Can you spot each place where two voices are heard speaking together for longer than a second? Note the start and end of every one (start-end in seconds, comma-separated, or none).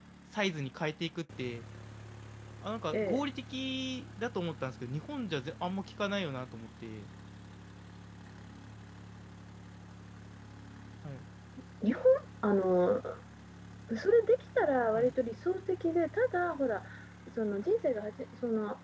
none